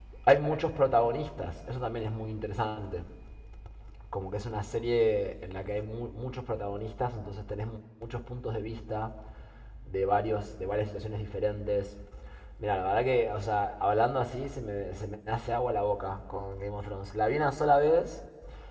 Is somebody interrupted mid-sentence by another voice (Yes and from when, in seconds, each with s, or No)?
No